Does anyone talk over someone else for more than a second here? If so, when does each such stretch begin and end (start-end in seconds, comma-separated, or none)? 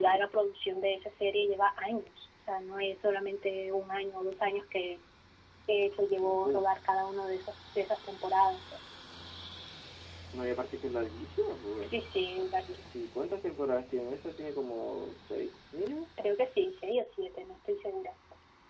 none